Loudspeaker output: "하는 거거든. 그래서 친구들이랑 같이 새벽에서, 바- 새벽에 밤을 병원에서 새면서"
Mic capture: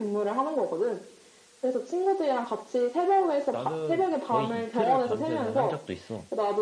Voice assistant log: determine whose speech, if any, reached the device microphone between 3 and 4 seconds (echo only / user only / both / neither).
both